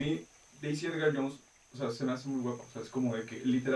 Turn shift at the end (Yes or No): No